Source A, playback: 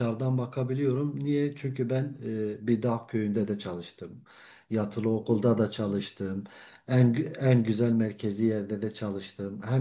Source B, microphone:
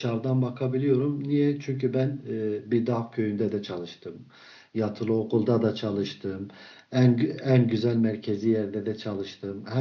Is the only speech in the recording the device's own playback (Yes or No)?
Yes